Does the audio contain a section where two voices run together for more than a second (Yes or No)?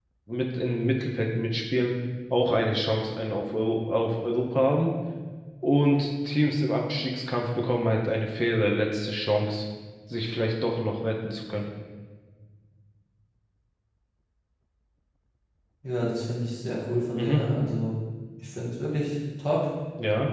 No